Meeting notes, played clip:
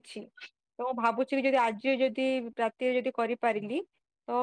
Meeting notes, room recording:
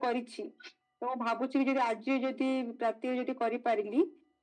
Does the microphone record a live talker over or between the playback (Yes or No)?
No